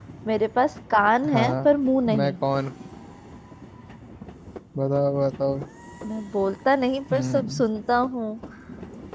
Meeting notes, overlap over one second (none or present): none